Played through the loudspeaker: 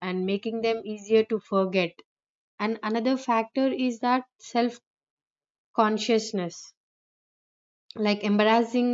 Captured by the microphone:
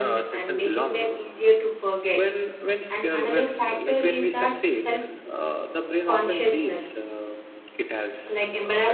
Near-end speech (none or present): present